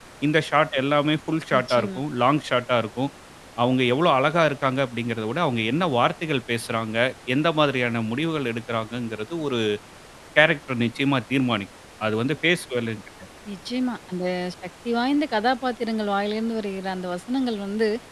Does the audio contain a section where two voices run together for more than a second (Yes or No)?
No